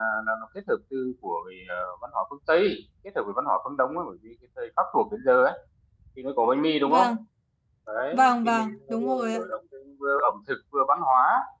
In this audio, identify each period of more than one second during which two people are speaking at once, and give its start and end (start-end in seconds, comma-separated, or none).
8.1-9.4